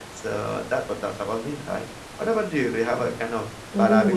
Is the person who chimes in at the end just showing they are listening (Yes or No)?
No